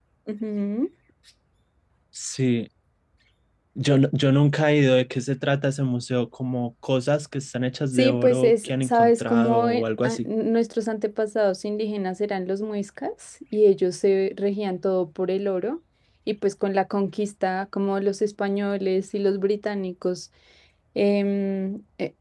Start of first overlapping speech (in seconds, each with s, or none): 7.9 s